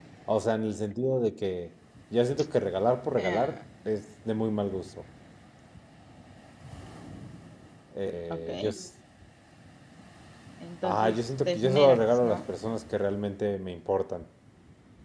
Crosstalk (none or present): present